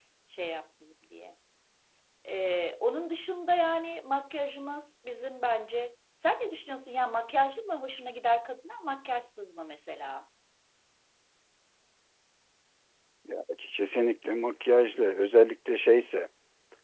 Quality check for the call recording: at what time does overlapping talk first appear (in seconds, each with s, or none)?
none